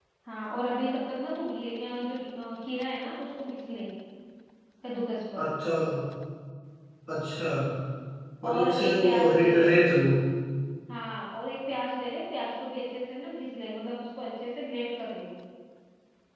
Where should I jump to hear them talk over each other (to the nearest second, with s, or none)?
8 s